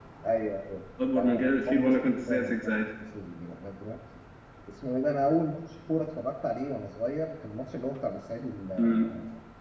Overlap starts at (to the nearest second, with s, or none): 1 s